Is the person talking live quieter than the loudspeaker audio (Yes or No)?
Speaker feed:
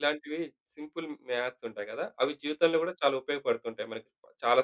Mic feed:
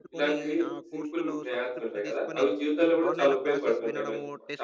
Yes